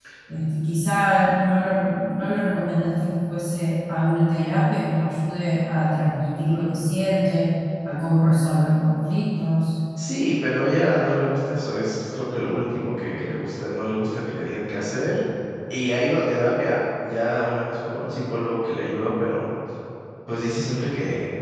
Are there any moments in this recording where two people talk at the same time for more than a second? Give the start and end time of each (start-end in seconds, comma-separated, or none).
none